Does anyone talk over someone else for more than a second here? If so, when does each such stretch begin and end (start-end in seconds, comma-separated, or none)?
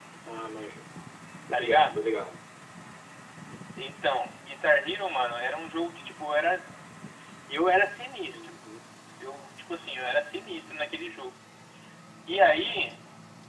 none